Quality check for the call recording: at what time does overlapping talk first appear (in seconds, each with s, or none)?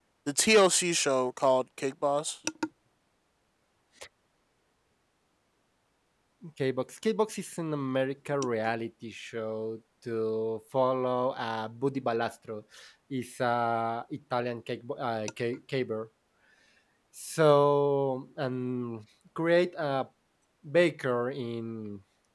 none